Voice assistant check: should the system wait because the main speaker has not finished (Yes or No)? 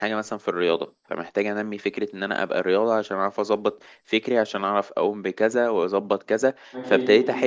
Yes